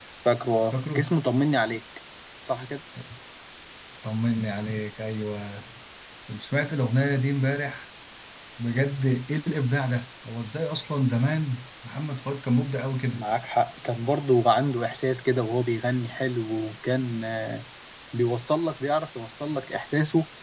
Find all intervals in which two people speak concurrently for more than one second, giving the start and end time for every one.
none

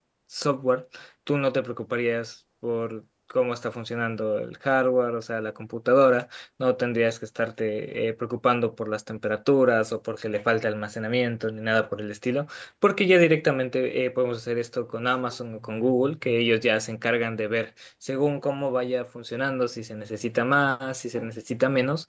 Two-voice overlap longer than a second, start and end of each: none

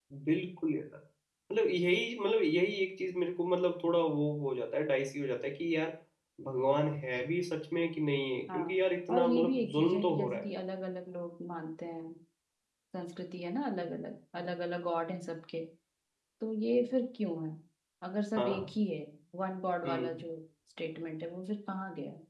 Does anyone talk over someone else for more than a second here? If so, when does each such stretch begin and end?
9.1-10.4

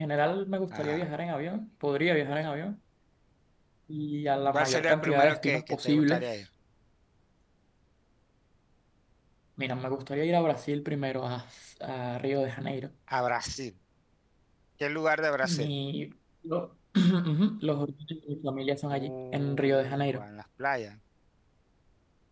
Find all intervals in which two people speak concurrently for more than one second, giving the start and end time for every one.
4.5-6.3, 18.9-20.2

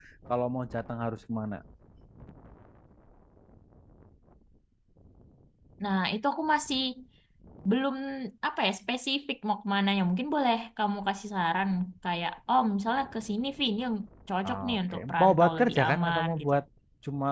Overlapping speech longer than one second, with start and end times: 14.4-16.6

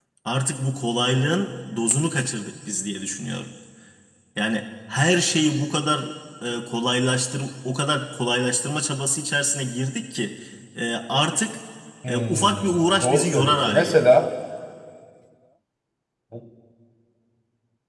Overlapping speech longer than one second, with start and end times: 12.1-14.2

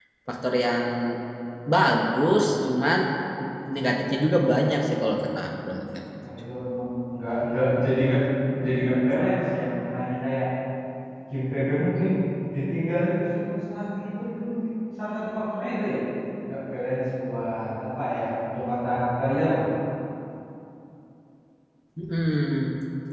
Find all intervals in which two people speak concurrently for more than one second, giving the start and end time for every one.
none

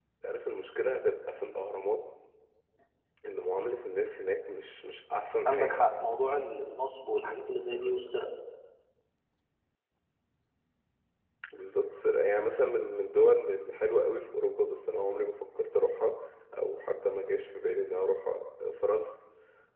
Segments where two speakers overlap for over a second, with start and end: none

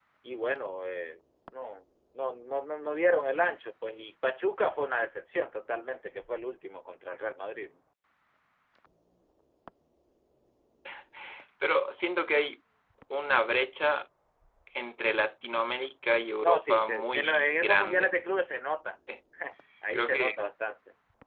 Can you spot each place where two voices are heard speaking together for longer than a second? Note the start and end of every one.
16.4-18.1

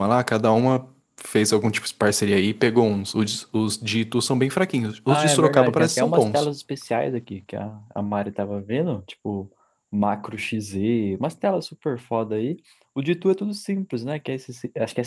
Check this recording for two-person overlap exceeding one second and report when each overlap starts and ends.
5.1-6.5

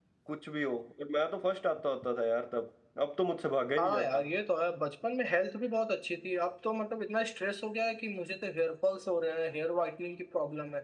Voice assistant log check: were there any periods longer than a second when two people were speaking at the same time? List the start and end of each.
none

